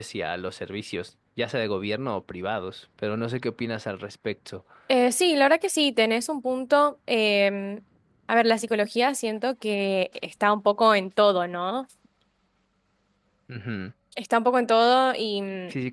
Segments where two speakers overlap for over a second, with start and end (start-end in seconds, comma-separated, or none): none